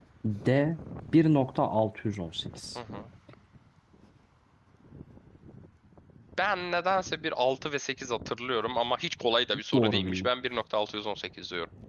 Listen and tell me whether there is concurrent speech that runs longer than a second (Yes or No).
No